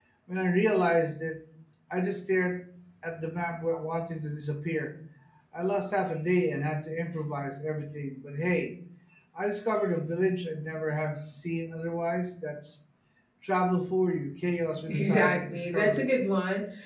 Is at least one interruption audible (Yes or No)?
Yes